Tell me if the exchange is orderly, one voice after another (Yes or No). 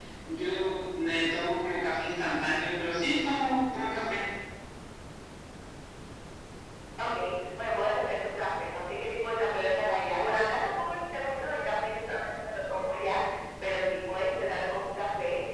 Yes